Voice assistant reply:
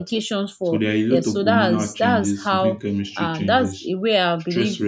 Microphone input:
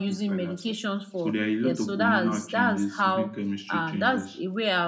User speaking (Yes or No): No